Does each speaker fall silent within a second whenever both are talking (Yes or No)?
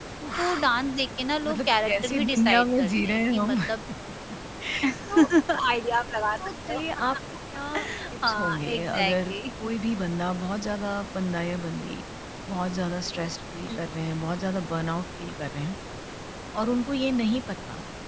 No